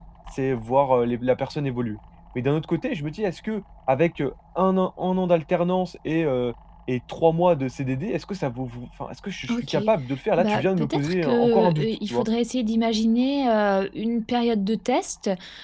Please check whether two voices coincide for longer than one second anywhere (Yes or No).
Yes